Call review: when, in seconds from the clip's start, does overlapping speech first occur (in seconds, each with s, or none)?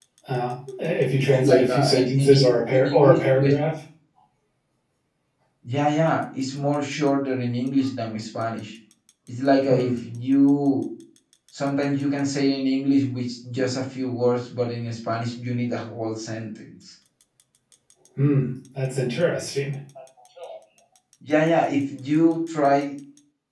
1.2 s